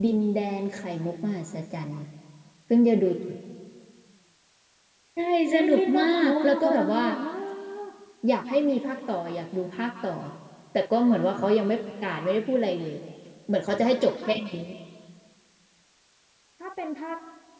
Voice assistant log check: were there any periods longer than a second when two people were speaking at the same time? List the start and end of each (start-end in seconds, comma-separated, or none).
5.5-7.0